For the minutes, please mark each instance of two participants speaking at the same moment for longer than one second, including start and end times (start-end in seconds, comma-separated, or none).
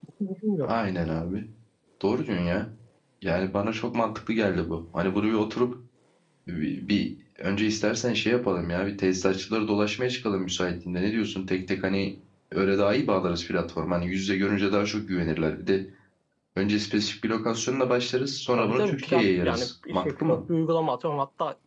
18.6-20.4